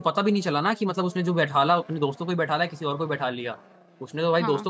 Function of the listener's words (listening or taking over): listening